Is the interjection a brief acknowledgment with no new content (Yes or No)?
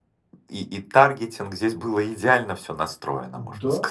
No